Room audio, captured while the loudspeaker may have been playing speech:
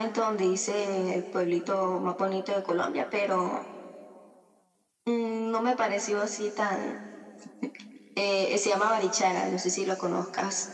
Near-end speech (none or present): none